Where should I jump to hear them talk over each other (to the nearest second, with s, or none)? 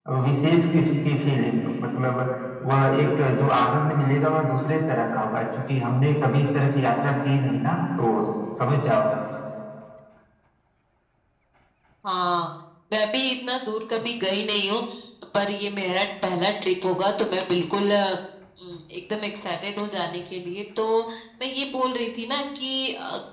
none